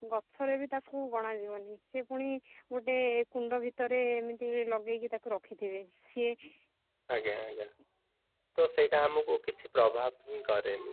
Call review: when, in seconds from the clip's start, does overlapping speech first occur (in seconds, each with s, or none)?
none